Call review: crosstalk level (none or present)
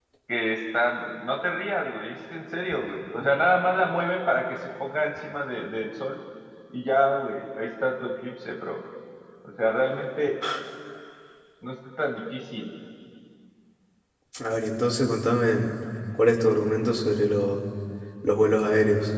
none